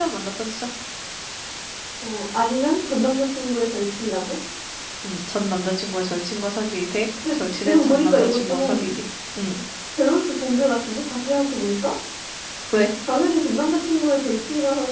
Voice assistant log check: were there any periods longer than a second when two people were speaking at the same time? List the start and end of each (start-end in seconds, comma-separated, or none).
7.3-8.9